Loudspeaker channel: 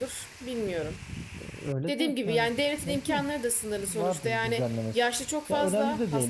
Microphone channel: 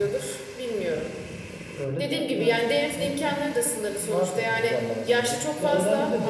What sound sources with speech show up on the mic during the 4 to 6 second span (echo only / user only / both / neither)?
both